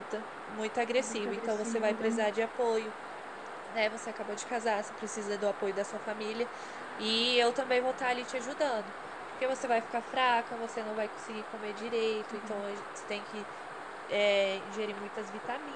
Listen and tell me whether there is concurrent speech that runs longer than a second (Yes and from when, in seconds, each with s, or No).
Yes, from 1.0 s